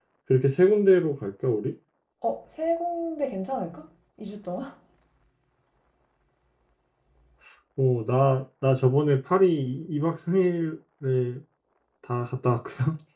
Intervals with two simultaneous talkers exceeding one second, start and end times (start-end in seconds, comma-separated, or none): none